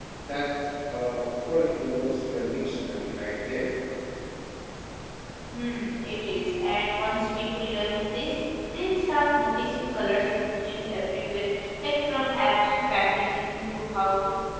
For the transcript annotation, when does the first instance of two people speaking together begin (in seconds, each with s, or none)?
none